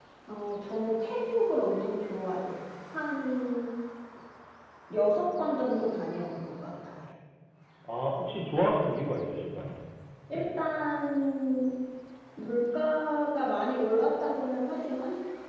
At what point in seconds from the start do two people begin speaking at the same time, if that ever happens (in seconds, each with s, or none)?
none